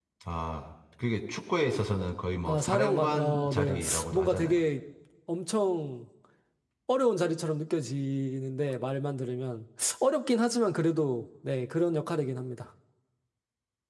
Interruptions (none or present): present